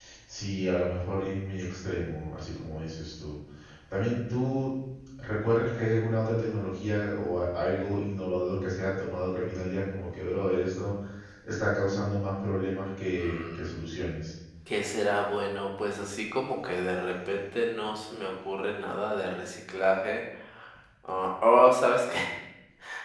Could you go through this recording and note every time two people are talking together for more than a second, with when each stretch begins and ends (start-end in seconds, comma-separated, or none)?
none